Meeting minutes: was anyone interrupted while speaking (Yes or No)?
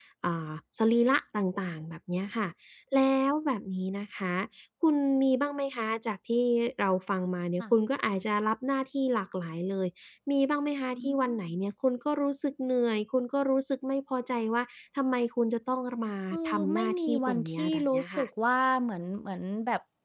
Yes